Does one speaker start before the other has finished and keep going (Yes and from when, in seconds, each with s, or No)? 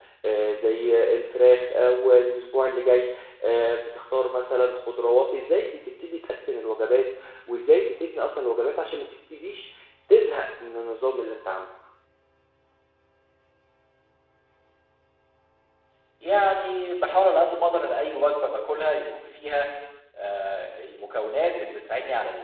No